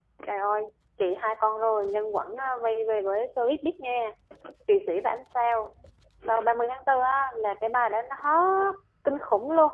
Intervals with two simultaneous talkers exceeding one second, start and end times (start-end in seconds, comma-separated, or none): none